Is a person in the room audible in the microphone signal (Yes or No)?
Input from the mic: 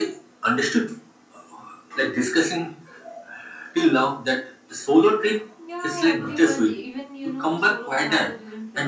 Yes